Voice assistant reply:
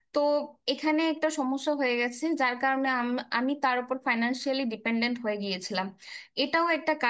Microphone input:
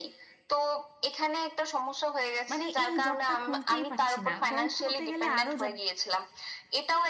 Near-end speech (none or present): present